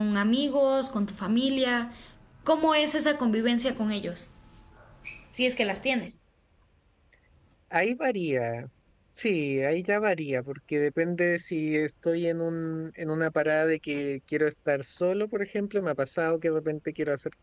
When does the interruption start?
none

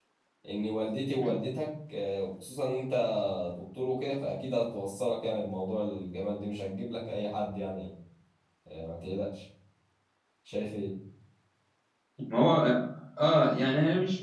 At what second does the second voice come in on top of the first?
none

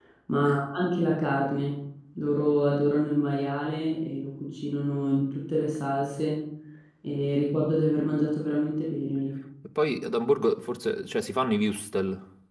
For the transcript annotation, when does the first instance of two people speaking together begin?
none

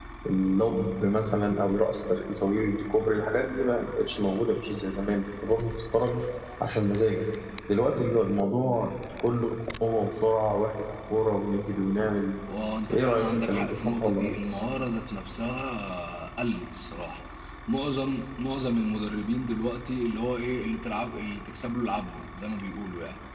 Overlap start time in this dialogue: 12.9 s

